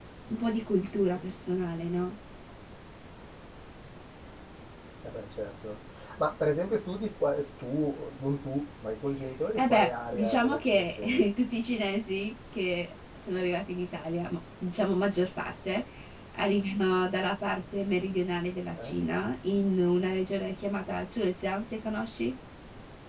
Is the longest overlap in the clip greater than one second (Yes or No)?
Yes